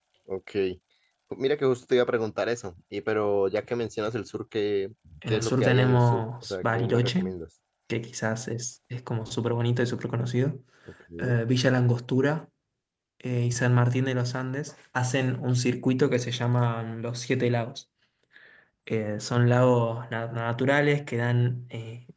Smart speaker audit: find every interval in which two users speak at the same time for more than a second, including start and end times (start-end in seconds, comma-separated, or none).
5.3-7.3